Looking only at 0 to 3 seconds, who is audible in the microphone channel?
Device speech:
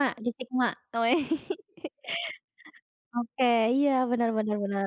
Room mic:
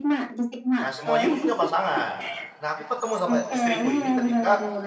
both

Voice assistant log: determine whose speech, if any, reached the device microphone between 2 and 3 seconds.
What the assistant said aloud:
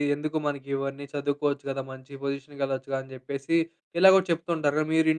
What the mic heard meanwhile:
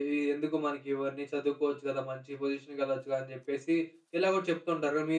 echo only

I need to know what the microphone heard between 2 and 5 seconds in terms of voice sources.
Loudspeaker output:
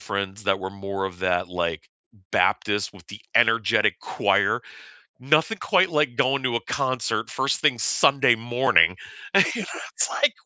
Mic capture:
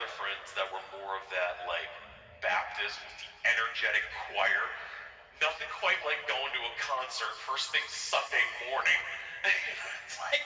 echo only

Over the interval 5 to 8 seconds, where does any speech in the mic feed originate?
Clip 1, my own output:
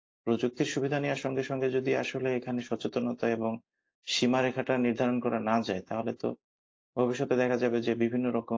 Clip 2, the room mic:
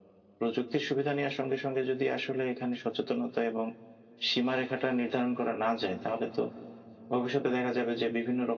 echo only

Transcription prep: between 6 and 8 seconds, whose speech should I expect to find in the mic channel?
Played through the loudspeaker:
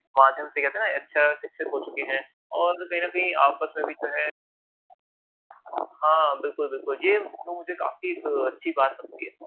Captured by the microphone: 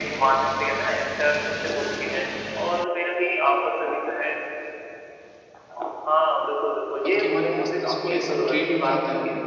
both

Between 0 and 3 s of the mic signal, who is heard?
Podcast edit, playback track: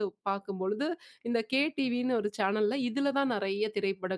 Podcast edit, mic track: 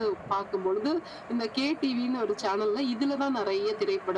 echo only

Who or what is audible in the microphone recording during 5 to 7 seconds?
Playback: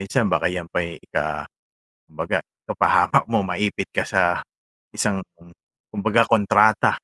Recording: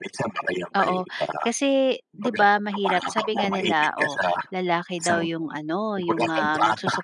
both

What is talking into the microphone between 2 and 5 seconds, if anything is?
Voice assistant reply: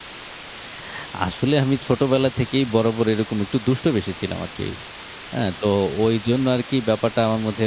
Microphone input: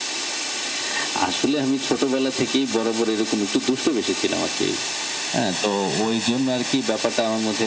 echo only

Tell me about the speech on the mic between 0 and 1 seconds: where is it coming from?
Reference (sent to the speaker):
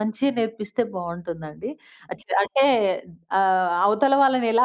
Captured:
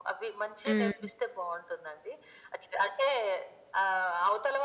both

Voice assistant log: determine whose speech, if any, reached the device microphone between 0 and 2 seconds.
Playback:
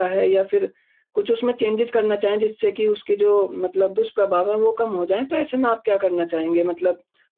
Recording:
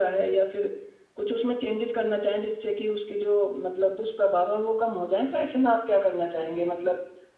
echo only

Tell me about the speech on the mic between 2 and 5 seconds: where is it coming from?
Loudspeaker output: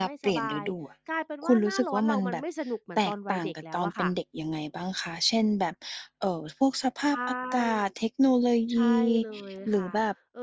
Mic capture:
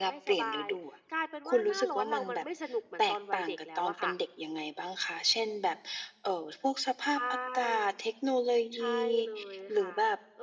echo only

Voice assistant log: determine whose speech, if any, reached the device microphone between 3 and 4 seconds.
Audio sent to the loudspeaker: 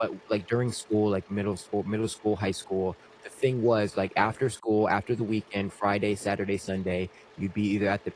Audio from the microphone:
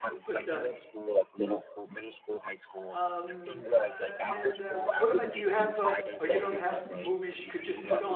both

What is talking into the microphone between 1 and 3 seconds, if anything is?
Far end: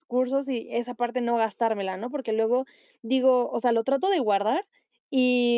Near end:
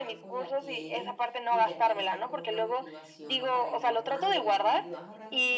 both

